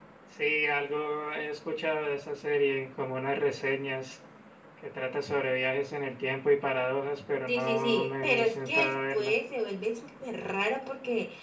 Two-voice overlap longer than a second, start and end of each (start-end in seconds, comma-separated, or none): 7.5-9.3